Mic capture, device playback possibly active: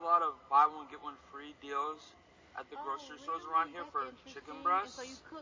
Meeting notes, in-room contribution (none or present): present